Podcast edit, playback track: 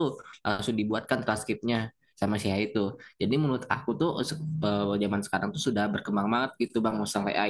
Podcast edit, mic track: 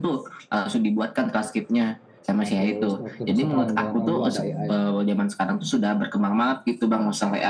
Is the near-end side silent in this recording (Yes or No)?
No